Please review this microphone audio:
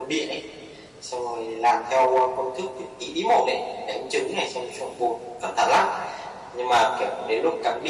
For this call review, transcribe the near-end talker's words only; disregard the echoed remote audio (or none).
none